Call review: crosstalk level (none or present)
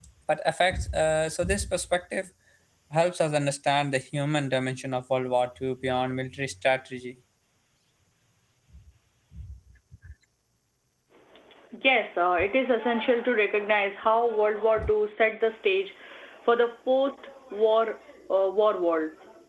none